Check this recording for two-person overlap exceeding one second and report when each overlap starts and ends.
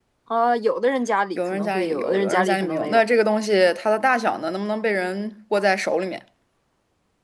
1.4-3.0

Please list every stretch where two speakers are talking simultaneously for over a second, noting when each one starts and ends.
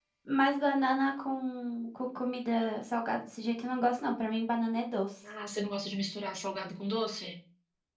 none

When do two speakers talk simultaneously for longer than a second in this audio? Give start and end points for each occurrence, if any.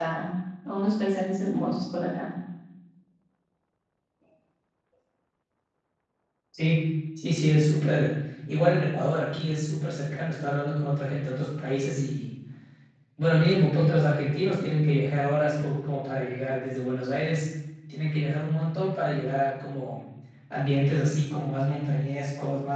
none

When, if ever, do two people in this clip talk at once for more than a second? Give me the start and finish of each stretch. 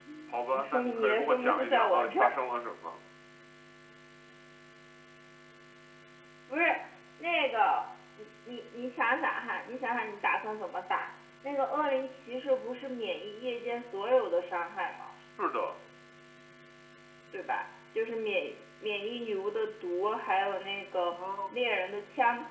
0.5-2.3

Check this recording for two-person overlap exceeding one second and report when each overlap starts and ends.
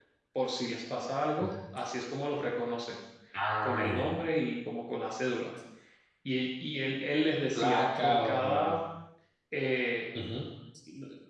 7.5-8.8

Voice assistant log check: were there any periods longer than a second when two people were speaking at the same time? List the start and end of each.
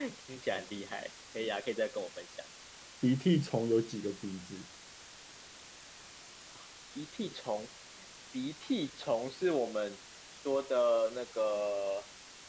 none

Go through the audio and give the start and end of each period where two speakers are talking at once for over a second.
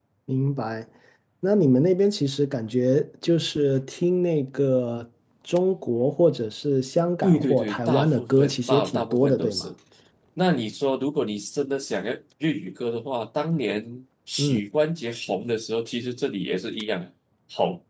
7.2-9.7

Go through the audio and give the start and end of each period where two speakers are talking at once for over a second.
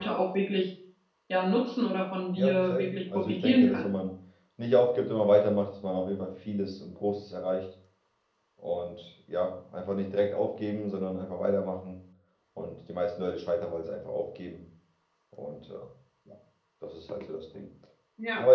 2.4-3.9

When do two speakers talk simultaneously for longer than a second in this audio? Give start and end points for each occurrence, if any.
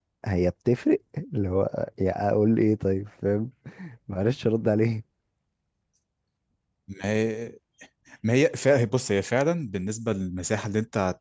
none

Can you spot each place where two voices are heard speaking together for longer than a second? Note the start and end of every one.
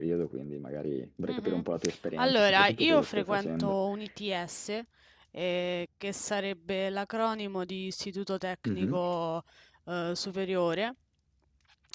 2.2-3.8

